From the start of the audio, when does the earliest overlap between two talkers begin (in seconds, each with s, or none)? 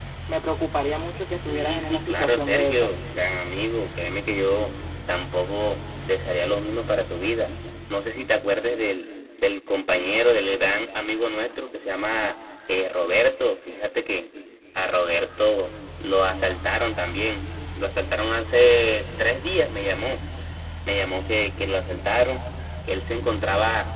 1.5 s